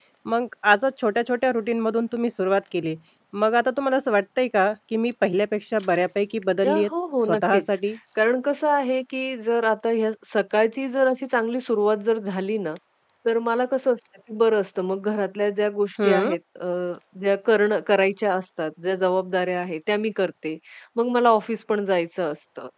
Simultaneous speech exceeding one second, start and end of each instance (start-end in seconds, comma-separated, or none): none